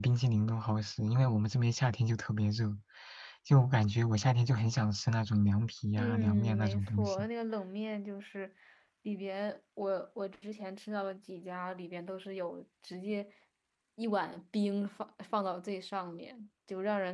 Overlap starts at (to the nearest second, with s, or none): 6 s